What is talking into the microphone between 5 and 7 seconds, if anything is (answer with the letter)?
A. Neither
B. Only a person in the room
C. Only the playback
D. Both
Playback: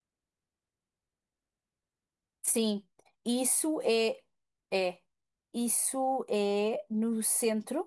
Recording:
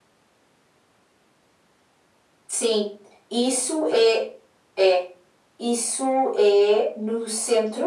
C